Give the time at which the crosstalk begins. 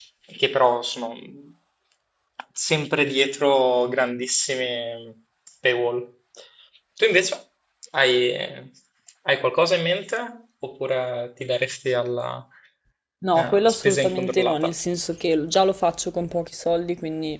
13.3 s

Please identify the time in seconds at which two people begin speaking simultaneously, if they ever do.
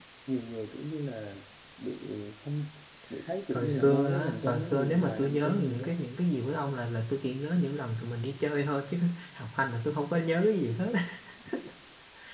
3.5 s

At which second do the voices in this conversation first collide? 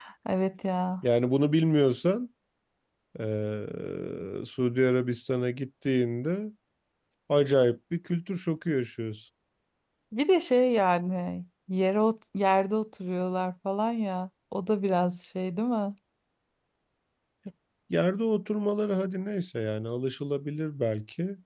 none

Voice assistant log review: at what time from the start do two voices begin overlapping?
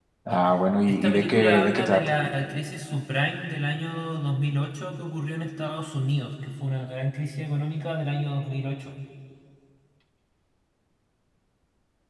0.9 s

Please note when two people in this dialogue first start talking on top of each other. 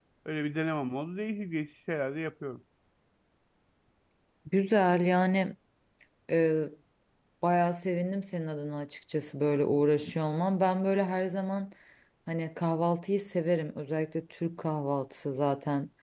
none

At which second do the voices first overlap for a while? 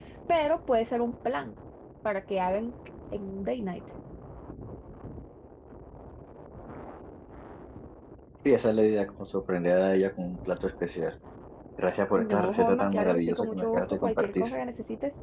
12.1 s

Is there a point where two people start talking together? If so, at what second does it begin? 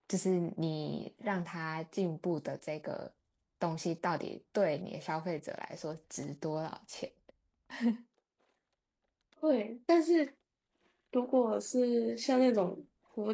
none

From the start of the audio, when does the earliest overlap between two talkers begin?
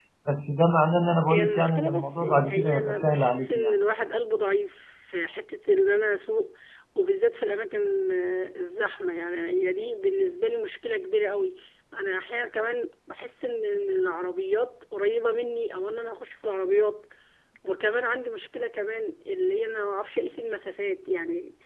1.3 s

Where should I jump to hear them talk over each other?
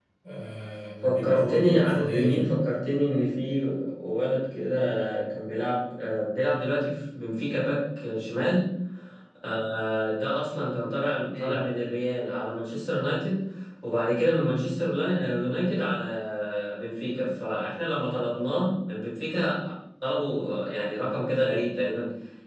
1.0 s

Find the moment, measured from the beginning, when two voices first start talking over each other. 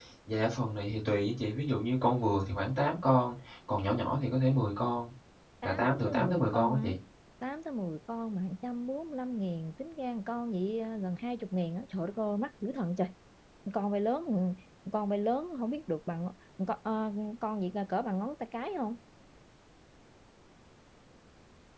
5.6 s

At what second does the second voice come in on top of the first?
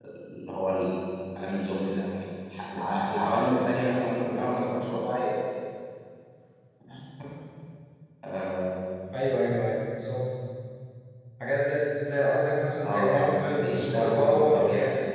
12.8 s

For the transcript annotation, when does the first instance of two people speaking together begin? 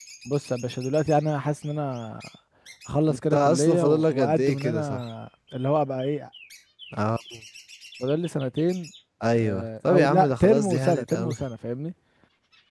3.1 s

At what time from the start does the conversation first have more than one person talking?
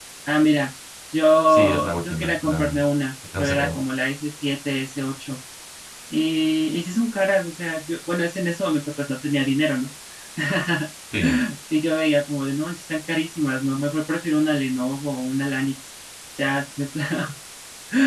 1.5 s

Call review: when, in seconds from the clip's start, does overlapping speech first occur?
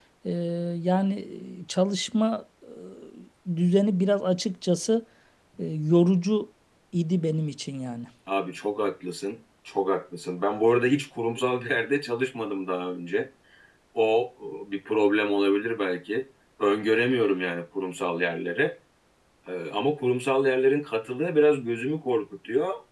none

